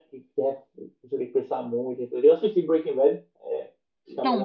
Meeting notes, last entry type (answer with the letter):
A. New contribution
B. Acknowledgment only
A